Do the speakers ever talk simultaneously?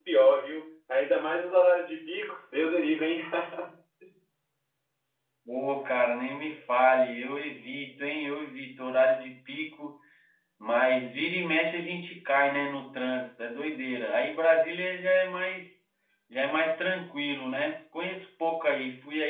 No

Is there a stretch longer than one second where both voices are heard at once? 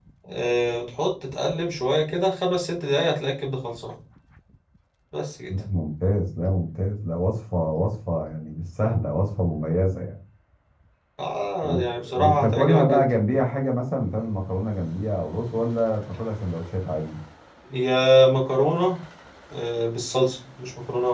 Yes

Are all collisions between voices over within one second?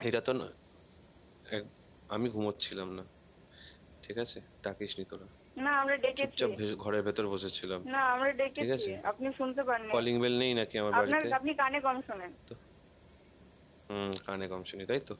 Yes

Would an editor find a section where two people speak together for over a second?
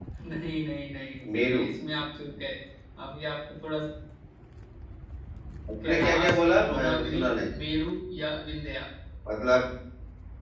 Yes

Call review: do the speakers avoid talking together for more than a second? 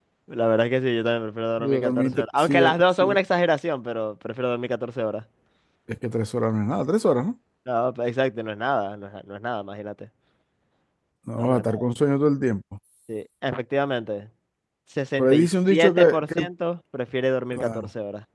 No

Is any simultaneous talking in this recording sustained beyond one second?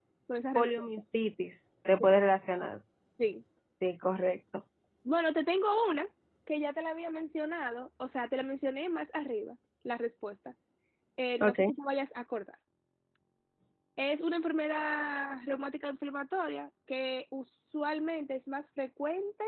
No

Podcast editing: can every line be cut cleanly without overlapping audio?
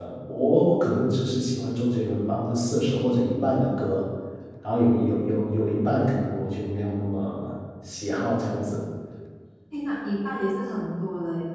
Yes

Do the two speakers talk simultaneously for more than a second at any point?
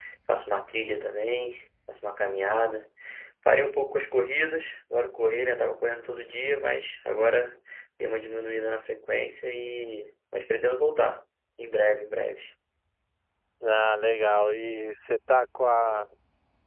No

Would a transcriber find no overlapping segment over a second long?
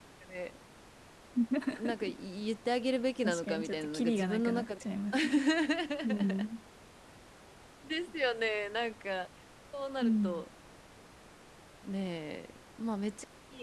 No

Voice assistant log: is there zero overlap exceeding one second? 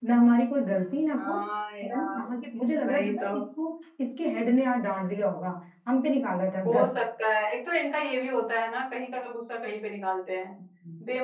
Yes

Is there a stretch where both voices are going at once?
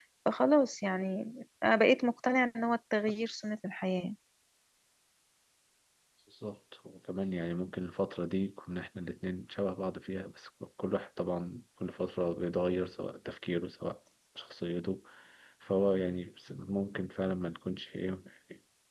No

